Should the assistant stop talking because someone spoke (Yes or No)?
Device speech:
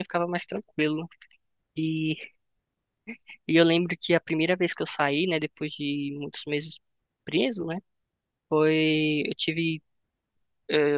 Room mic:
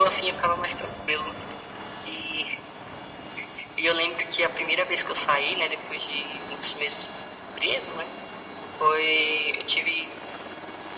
No